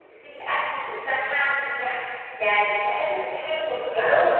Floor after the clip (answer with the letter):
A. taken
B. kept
A